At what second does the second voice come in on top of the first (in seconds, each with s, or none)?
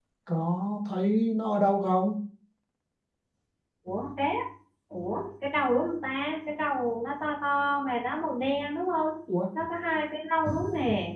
none